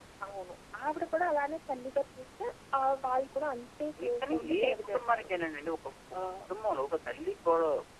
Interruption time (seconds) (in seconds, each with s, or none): 4.0 s